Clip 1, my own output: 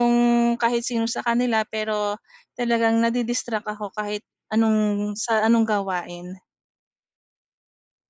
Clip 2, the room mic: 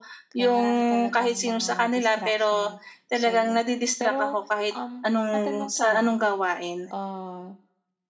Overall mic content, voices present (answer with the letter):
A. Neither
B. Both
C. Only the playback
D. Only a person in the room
B